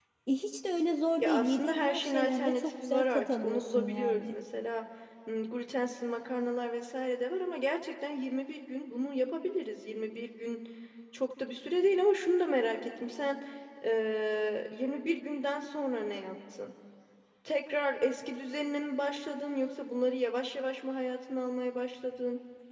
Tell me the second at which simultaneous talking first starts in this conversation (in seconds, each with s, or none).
1.2 s